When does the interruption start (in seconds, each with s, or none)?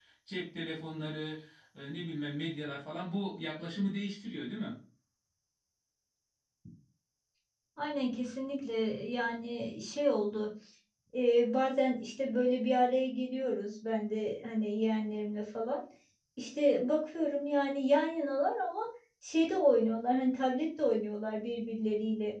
none